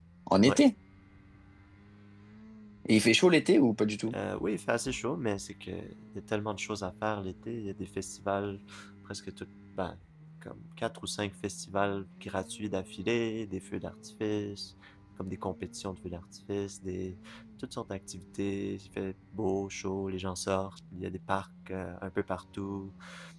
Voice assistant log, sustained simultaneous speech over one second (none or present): none